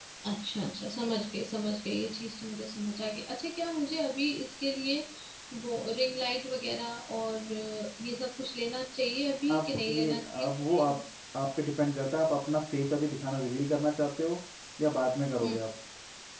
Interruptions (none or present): present